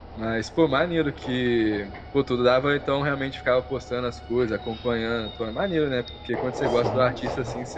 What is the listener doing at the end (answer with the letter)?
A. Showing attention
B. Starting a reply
A